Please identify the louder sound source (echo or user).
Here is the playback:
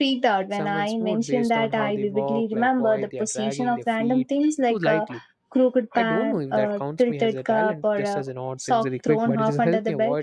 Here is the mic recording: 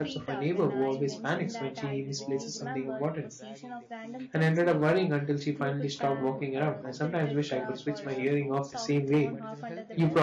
user